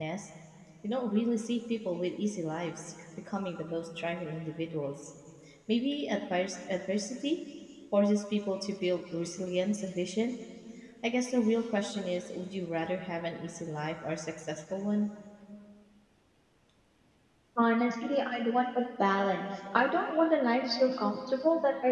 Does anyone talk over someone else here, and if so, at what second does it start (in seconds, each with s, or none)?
none